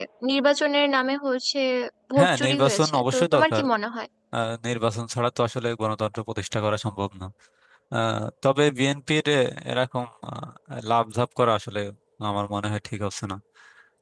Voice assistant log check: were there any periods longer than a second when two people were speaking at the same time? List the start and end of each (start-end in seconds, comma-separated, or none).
2.2-3.6